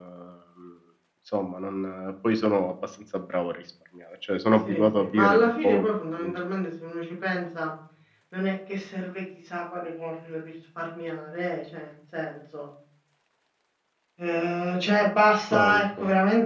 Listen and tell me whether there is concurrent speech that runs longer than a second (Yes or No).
Yes